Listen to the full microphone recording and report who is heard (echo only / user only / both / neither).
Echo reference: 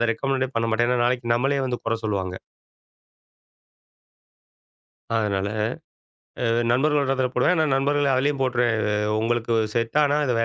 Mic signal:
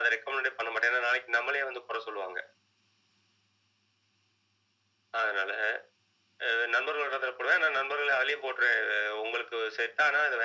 echo only